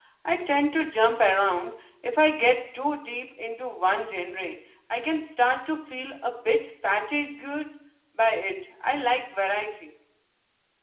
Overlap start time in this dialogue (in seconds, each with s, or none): none